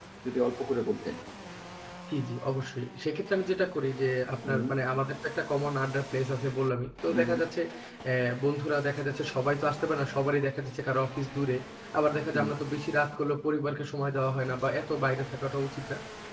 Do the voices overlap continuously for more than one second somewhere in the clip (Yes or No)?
No